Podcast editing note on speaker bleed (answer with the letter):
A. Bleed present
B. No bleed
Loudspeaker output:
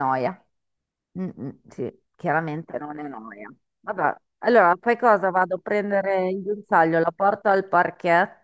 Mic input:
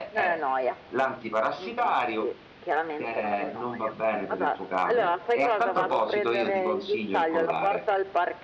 A